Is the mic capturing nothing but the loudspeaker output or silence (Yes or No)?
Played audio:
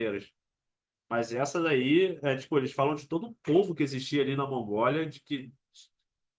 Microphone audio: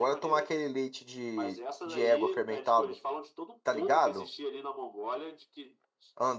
No